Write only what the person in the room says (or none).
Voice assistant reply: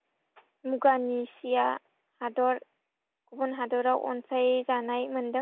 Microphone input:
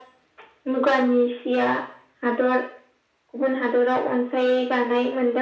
none